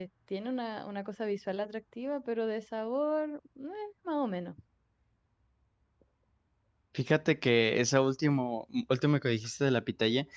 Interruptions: none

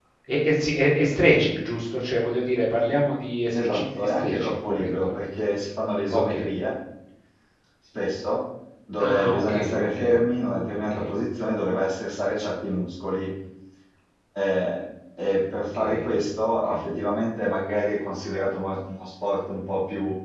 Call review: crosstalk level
present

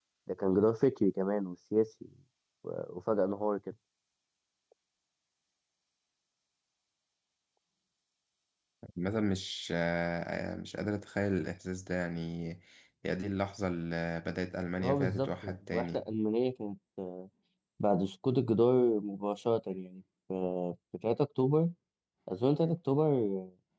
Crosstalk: present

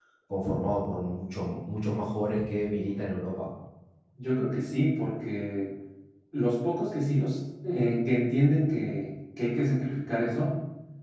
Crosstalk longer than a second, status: none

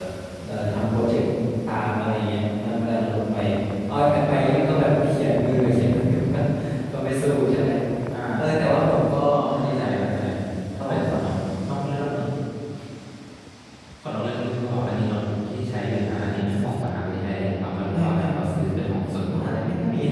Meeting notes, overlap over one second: present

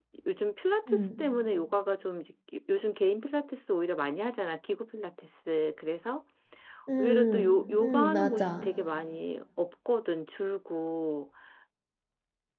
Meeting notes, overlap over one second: present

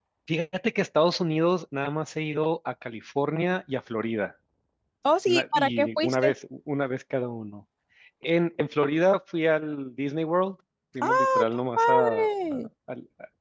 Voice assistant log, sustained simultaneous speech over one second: present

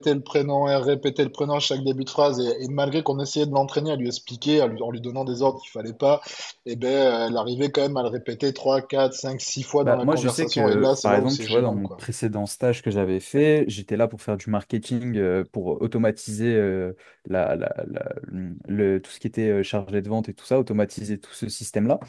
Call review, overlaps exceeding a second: present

